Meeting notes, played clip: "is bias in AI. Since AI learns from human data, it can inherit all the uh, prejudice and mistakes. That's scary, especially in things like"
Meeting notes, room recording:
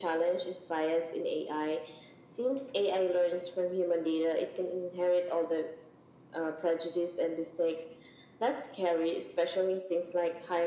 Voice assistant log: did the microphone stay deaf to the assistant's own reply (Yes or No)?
No